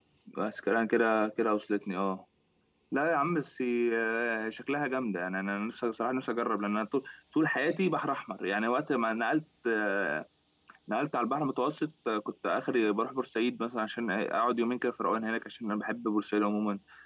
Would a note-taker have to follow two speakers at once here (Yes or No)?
No